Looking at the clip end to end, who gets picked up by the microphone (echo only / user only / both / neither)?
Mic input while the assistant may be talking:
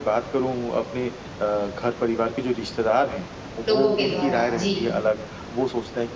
both